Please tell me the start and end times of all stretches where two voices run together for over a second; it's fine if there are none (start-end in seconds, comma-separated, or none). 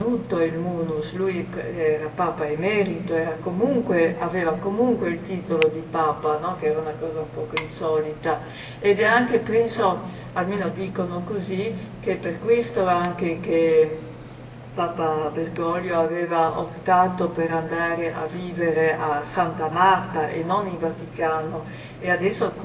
none